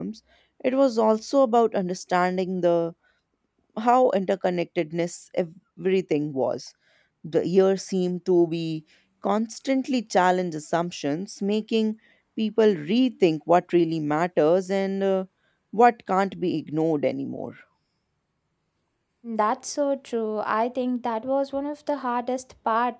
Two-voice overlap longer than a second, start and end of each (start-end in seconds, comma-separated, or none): none